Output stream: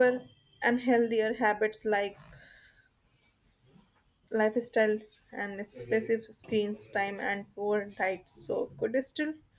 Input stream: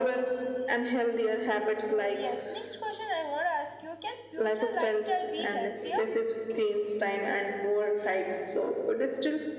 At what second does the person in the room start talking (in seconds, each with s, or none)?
1.7 s